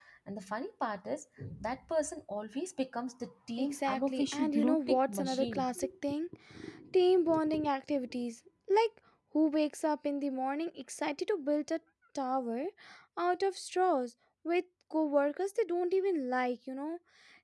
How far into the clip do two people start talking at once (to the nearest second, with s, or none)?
4 s